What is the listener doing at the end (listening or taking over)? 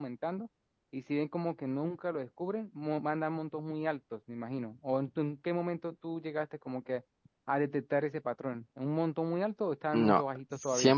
taking over